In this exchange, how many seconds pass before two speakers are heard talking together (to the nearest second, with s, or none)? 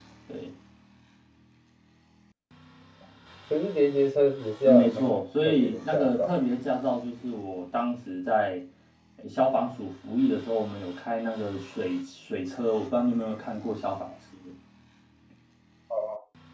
5 s